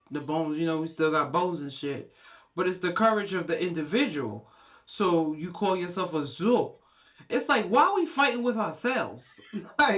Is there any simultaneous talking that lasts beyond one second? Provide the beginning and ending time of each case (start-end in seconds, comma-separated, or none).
none